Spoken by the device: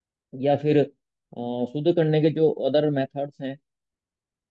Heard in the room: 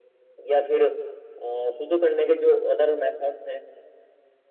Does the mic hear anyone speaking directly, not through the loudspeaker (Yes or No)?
No